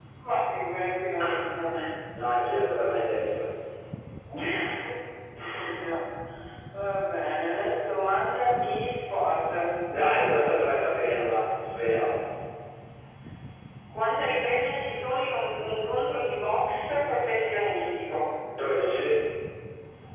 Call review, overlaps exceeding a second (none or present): none